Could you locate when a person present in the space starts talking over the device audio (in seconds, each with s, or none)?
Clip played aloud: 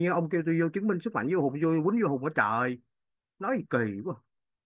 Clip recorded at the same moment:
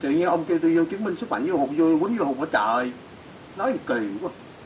none